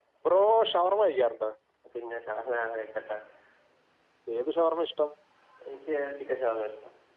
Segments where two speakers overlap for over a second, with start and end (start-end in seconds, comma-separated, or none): none